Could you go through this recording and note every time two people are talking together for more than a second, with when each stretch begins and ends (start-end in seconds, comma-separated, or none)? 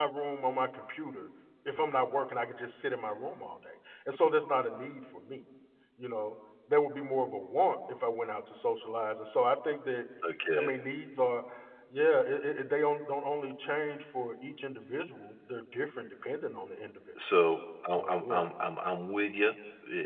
none